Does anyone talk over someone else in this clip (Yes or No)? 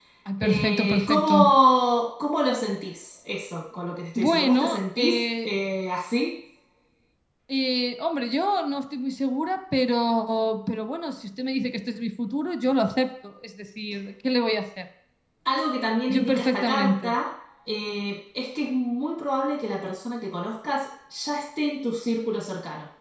Yes